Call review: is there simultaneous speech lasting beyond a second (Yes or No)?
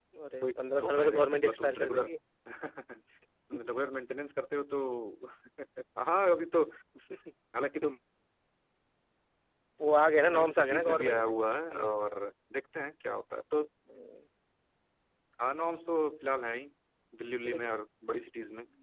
Yes